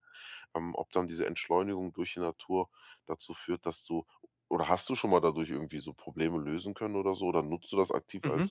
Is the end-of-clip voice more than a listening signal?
Yes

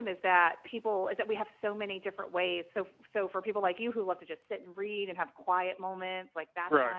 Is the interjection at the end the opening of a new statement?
No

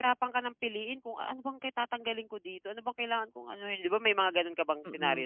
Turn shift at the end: Yes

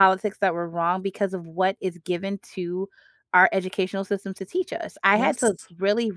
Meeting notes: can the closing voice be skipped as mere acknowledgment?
Yes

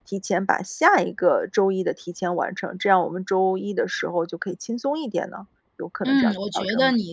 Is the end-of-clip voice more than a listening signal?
Yes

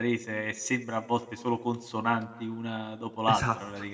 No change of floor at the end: No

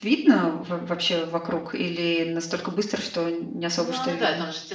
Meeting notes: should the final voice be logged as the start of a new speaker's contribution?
Yes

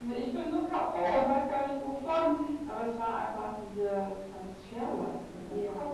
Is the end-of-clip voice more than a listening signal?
Yes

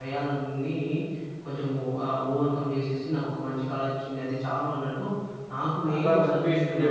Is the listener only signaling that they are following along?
No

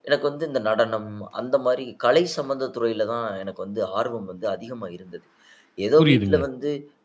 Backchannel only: Yes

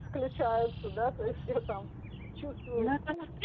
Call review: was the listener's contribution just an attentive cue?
No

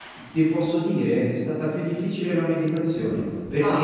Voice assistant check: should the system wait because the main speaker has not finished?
Yes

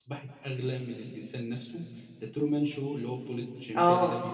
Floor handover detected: Yes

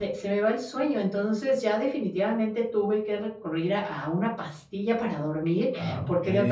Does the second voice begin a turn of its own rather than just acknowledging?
No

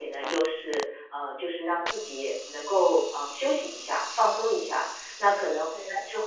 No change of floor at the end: Yes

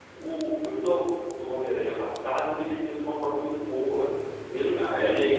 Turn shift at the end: No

